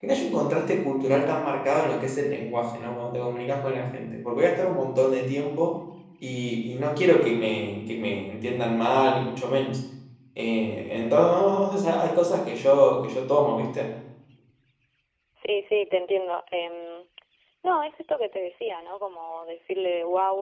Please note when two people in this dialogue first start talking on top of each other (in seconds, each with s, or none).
none